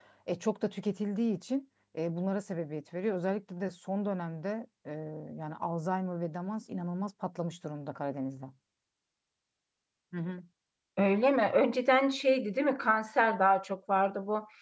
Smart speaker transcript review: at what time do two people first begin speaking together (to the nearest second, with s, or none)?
none